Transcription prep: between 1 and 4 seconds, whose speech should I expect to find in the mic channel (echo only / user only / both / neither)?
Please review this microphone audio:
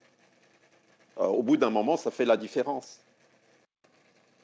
user only